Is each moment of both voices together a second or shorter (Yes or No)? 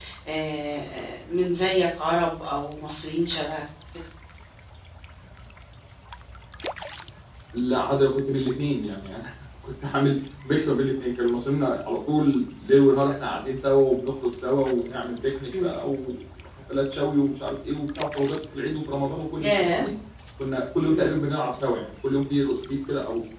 Yes